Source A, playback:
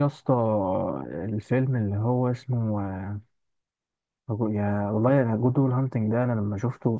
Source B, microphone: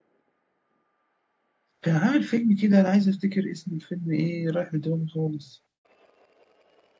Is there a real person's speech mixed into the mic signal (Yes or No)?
Yes